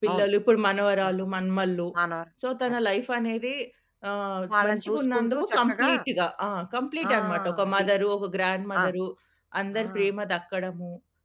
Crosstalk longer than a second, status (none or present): present